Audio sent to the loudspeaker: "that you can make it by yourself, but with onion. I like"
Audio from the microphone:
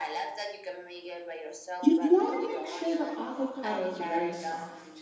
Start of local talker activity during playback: 1.8 s

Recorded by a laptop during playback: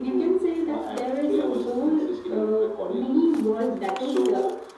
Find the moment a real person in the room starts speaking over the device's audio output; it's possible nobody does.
none

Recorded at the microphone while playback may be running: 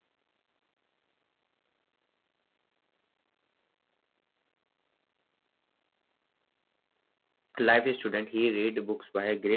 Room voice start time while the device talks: 7.6 s

